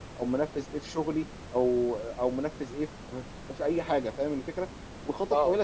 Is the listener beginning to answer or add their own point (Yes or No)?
No